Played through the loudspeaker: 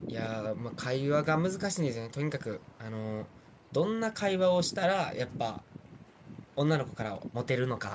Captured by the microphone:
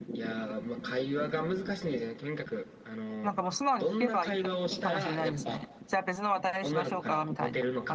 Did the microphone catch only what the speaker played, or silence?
No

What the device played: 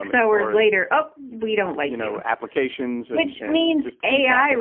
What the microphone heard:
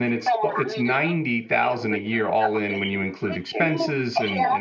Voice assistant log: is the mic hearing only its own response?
No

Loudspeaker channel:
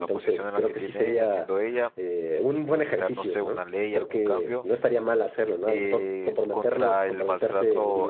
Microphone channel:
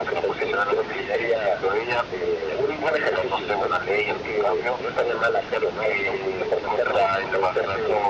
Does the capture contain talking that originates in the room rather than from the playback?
No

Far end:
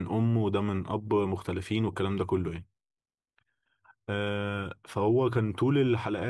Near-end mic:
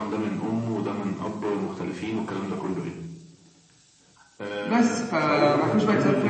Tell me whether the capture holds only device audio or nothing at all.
No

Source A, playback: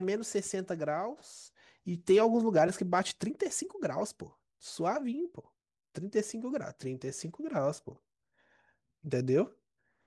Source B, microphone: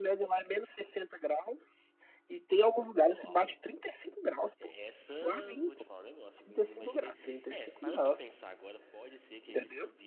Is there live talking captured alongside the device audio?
Yes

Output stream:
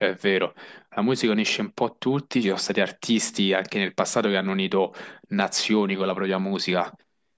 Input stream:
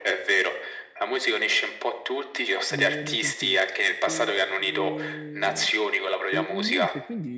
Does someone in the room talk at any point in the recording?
Yes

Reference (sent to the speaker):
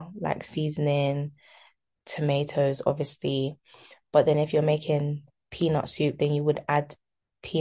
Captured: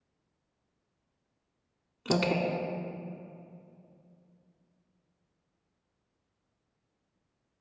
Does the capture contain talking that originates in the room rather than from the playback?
Yes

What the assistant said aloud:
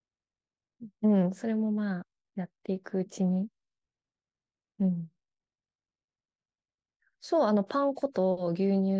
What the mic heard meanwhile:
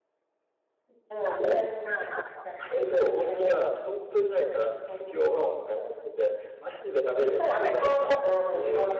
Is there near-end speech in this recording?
Yes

